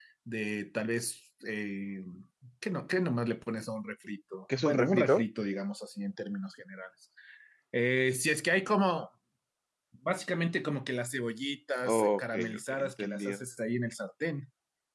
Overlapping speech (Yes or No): Yes